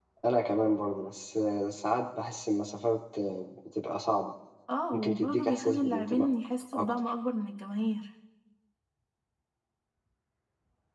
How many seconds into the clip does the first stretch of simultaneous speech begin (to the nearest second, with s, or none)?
5 s